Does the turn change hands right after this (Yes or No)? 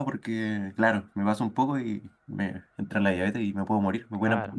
Yes